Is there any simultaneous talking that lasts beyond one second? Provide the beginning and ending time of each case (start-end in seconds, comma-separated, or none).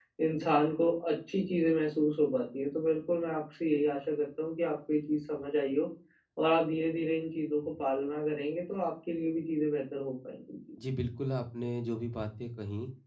none